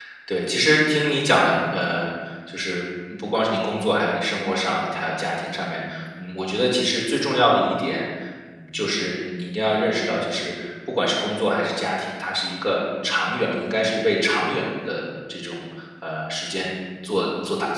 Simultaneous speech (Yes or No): No